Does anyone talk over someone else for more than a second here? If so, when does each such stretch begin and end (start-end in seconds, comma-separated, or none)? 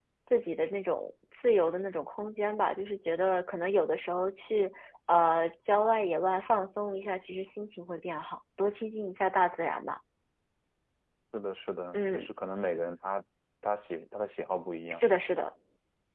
none